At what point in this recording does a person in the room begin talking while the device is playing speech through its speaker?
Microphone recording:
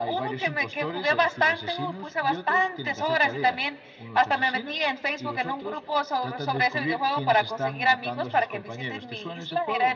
none

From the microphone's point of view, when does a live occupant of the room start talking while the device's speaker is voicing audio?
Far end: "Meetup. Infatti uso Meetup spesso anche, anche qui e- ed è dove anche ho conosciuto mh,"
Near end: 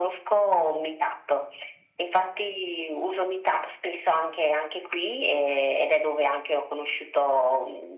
none

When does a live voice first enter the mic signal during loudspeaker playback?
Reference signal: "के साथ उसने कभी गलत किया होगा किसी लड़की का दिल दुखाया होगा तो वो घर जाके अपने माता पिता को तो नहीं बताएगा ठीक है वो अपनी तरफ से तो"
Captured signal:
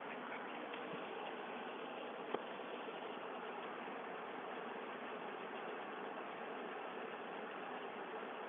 none

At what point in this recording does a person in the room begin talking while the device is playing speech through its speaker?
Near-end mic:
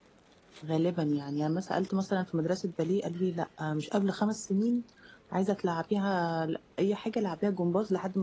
0.6 s

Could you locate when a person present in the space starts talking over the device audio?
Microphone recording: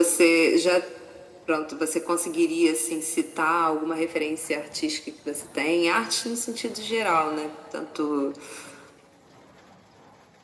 none

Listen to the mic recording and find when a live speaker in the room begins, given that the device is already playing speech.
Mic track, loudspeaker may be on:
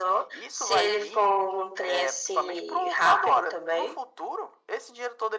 none

